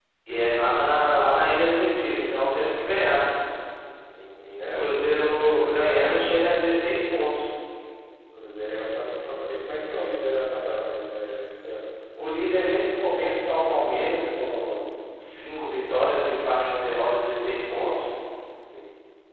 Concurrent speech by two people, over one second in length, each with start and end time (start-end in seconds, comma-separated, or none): 4.7-6.6